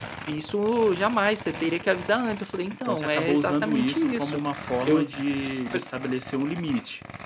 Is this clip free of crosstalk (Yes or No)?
No